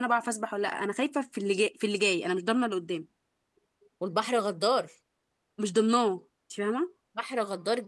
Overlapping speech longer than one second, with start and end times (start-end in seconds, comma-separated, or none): none